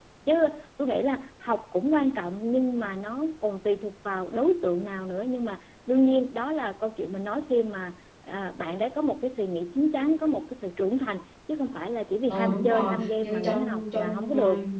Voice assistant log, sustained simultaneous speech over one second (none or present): present